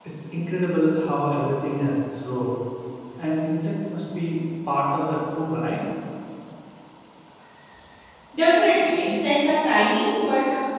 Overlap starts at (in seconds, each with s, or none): none